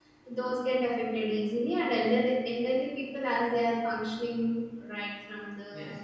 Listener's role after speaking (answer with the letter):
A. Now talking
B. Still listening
A